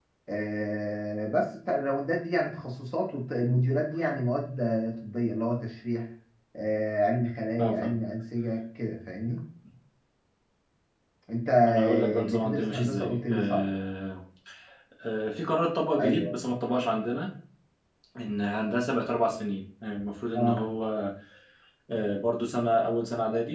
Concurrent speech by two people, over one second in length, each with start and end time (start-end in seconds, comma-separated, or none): 11.7-13.7